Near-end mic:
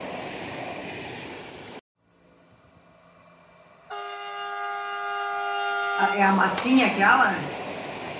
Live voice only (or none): Ah, É a massinha aquela?